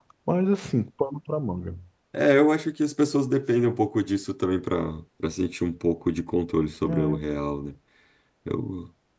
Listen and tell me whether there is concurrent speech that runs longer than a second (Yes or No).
No